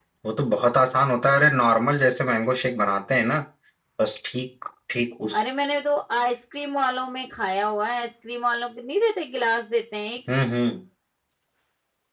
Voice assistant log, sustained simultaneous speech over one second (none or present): none